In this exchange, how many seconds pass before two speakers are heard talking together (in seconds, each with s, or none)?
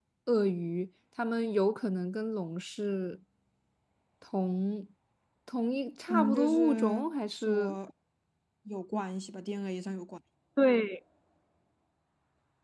6.1 s